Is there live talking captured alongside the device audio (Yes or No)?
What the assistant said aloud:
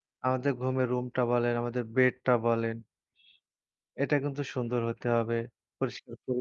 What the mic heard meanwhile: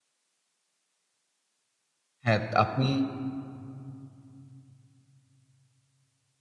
Yes